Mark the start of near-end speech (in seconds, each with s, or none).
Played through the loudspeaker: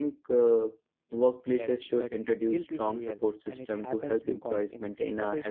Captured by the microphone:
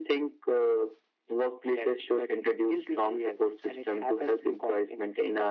none